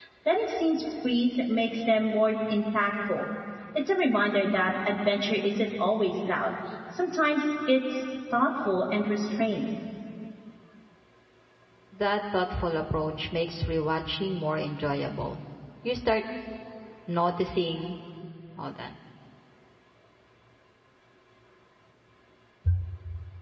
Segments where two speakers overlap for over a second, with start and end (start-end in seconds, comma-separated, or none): none